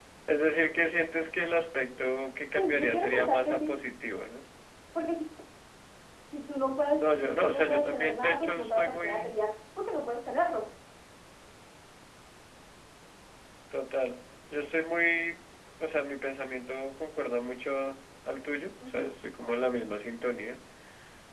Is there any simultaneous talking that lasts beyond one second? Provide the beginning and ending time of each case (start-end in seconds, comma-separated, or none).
2.5-3.8, 7.0-9.4